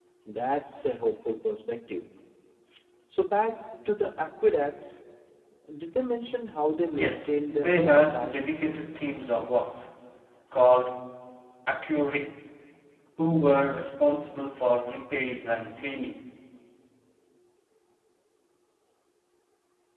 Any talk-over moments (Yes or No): Yes